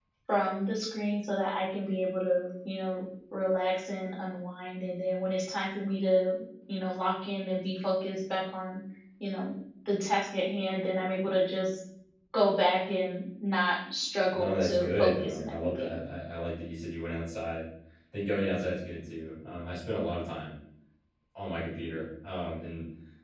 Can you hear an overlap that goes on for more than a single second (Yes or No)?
Yes